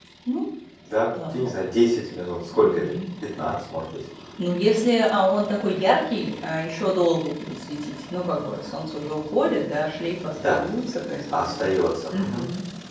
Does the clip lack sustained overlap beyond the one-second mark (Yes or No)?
Yes